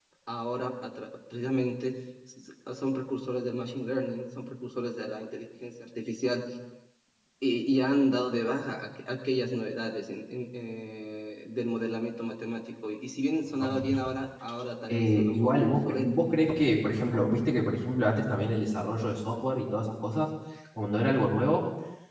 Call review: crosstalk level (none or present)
present